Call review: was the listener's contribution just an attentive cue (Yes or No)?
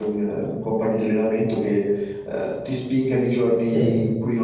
Yes